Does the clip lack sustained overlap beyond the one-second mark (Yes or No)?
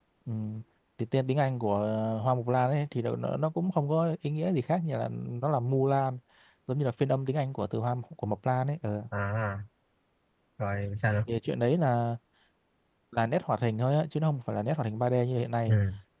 Yes